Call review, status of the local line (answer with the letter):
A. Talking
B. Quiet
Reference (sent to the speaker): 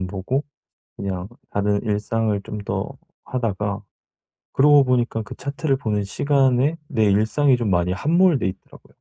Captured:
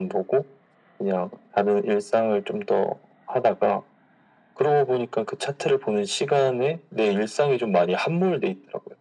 B